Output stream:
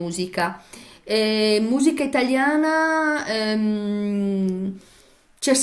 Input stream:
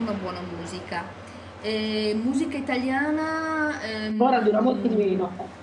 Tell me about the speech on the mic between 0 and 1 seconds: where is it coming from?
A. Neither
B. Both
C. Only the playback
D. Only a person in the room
C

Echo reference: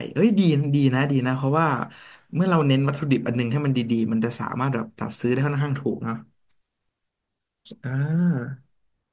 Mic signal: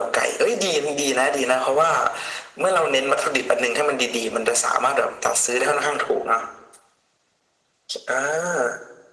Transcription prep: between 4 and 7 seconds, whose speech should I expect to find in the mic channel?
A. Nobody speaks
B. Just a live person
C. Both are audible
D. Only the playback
D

